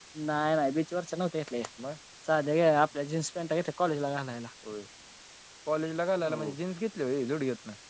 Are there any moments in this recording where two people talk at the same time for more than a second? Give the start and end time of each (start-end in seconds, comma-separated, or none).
none